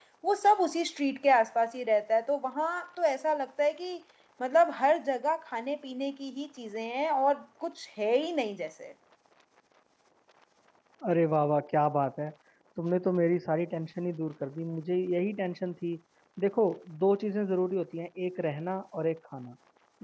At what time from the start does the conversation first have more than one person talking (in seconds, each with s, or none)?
none